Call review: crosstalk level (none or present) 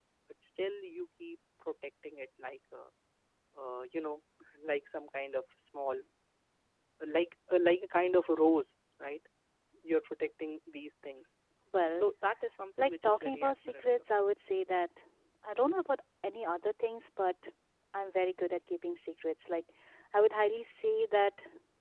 present